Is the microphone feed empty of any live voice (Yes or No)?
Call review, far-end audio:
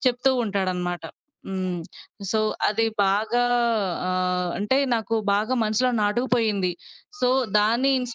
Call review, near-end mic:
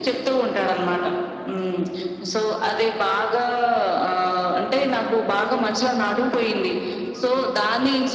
Yes